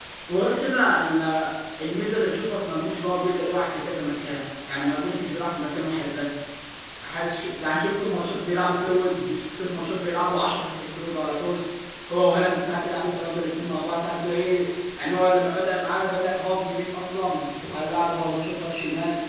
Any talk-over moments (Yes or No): No